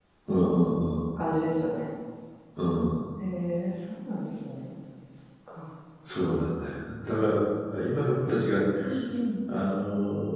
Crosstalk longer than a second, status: none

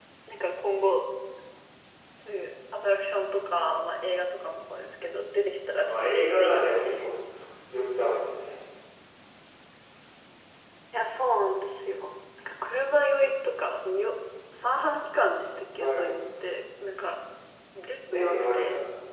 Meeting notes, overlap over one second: present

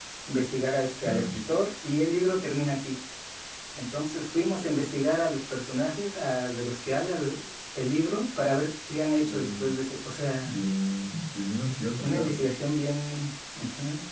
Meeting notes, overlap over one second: none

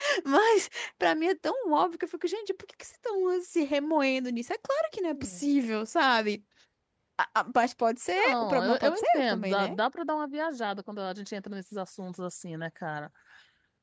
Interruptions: present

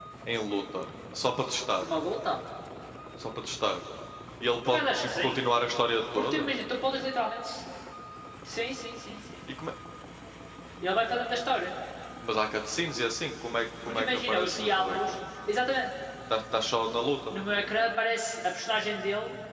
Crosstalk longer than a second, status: present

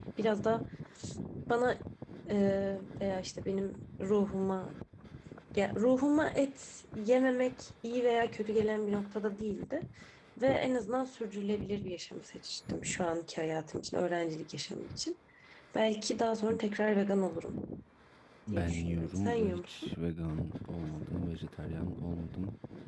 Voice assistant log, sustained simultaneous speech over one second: present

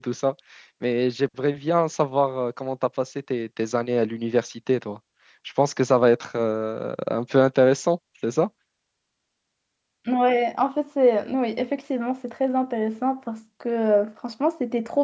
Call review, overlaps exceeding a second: none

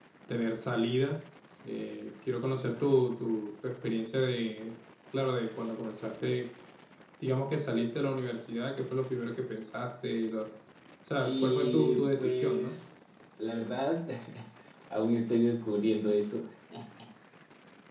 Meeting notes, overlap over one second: present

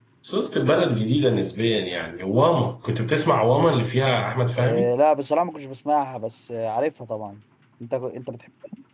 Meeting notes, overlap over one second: none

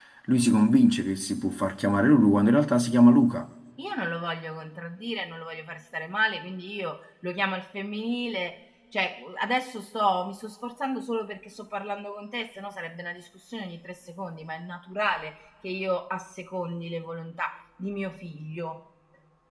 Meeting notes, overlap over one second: none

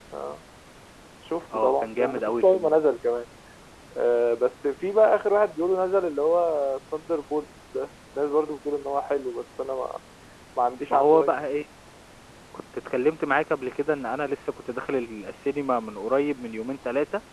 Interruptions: present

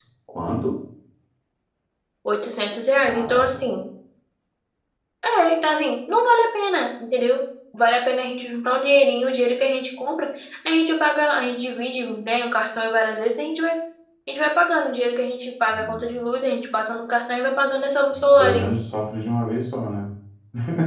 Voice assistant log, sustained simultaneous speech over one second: none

